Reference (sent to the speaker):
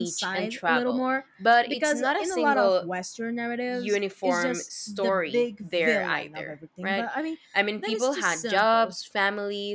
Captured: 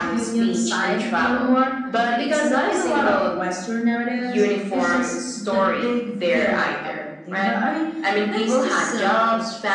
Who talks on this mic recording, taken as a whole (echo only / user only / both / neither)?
echo only